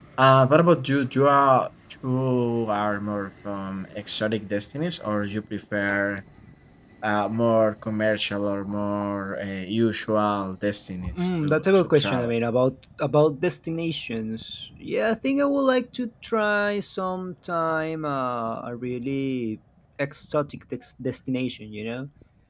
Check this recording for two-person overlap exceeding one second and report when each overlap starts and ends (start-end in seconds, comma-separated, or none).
11.0-12.3